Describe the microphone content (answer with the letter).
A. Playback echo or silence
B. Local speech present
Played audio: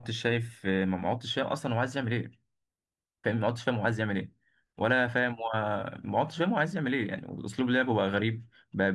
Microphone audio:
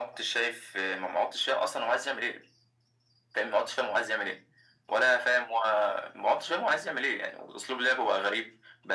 A